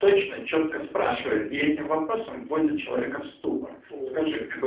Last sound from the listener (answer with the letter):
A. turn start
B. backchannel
B